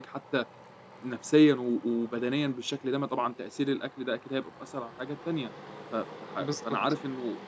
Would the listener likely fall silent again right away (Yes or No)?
Yes